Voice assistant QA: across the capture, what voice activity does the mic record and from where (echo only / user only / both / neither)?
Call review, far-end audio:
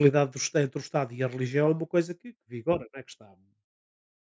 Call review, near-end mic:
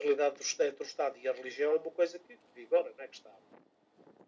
echo only